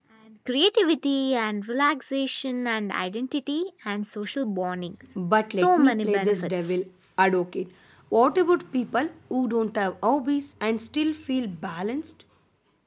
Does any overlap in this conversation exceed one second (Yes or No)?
Yes